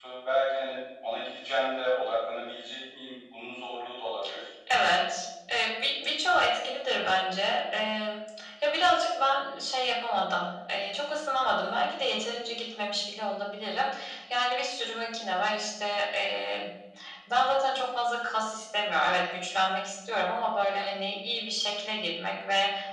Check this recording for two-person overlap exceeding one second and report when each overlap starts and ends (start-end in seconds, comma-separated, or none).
none